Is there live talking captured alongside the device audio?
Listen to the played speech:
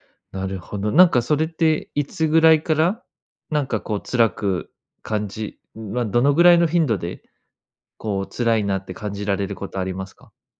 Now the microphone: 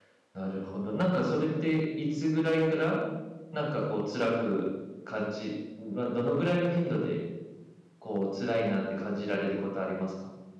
No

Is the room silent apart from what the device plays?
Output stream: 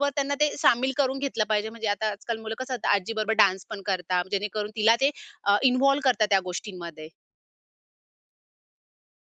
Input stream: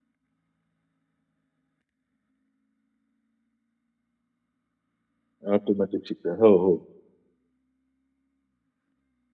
No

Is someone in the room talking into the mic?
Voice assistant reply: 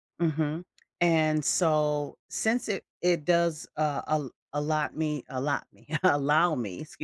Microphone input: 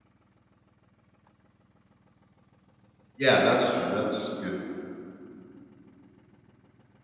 Yes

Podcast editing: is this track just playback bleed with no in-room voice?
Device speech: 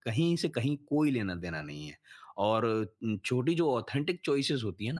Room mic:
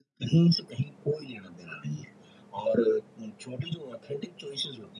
Yes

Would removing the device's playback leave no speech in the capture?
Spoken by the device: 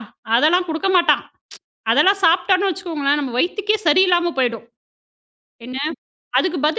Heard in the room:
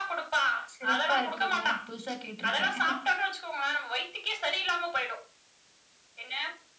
No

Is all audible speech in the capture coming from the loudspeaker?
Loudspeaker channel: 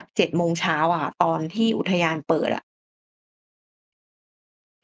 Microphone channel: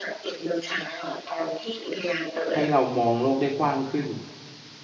No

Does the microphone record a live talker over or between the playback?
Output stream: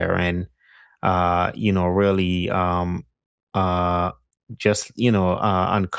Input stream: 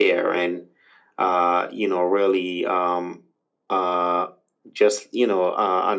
No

